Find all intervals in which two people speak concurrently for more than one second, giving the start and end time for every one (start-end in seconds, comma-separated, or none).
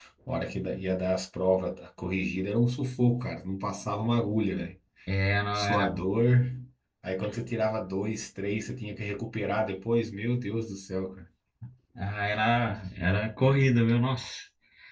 none